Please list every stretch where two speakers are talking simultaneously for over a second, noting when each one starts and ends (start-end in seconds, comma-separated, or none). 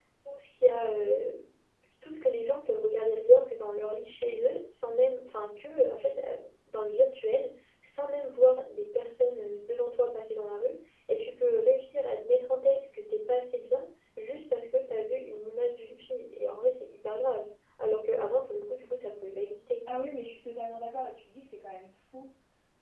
none